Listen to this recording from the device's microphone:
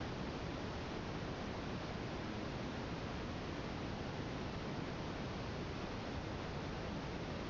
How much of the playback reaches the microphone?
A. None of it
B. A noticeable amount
A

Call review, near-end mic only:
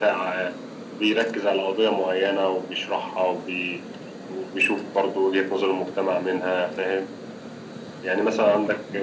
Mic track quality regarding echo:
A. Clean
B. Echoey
B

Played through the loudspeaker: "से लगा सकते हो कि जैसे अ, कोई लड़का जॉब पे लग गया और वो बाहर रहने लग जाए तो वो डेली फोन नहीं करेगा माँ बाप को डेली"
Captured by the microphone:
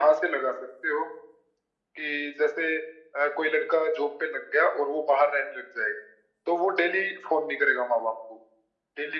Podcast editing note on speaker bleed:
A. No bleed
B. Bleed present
B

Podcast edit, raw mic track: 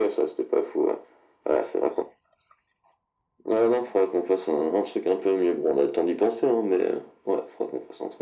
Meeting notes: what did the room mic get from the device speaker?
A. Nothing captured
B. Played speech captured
B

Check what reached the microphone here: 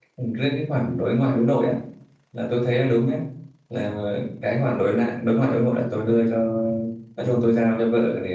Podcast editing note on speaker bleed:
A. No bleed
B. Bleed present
A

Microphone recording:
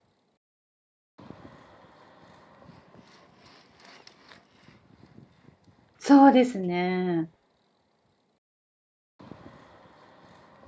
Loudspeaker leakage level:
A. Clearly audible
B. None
B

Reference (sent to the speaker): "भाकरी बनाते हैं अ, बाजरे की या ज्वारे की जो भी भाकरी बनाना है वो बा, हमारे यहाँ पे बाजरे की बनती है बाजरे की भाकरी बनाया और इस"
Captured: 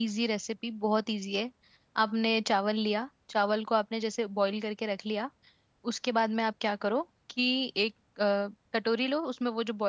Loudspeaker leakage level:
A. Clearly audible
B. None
B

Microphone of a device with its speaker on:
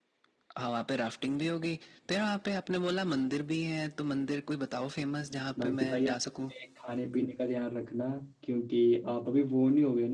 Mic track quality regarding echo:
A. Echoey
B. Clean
A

